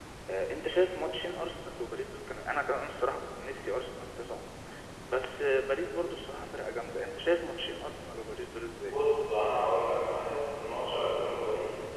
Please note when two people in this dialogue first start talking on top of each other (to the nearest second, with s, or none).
none